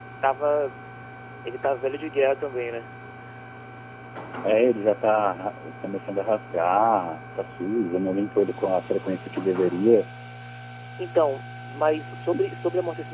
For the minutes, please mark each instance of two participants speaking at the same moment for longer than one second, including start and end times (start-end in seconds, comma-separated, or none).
none